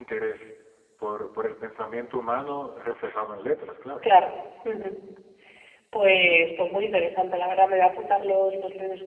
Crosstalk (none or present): none